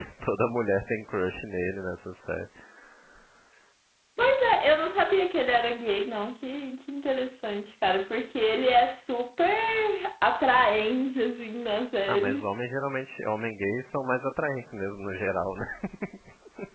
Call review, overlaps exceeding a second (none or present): none